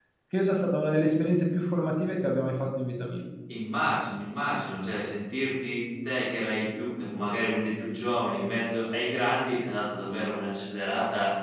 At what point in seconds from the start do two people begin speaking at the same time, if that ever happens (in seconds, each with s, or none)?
none